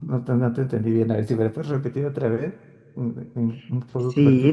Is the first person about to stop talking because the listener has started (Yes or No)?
Yes